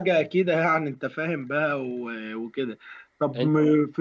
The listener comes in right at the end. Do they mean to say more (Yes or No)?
No